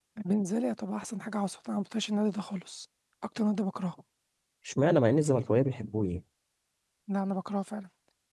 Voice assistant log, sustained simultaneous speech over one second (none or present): none